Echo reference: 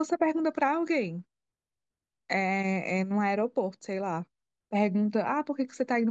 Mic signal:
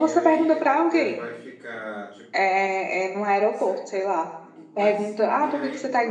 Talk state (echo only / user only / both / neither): both